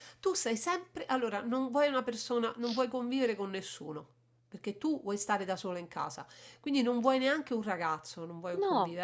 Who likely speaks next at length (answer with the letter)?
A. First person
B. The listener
A